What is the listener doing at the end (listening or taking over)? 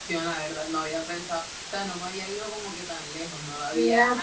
taking over